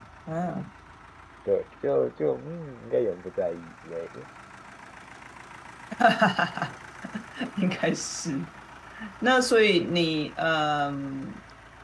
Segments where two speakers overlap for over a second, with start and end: none

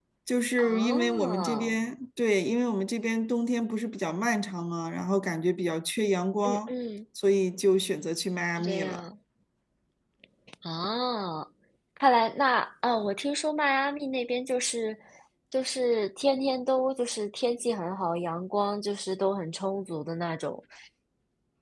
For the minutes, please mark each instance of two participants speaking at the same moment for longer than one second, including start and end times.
0.6-1.8

